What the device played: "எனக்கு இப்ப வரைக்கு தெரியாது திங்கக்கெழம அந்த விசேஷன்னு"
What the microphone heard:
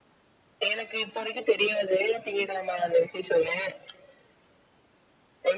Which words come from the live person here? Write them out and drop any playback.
none

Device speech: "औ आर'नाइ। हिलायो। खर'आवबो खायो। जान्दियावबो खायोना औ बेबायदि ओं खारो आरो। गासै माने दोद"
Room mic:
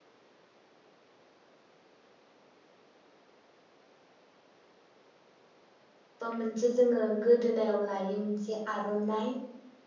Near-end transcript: बा मोनसे जोङो गोदोनायाव लायो मोनसे आर'नाइ।

